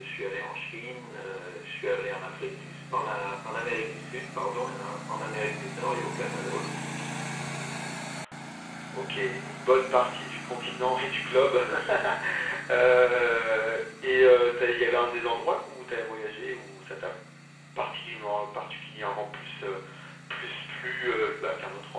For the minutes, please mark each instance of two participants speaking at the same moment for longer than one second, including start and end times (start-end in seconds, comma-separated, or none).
none